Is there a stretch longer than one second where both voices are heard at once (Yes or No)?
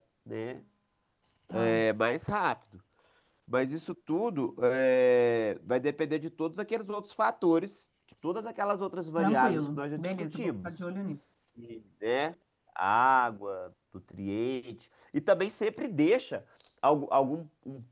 Yes